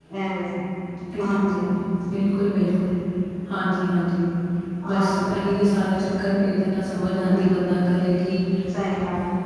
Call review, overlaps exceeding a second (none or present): none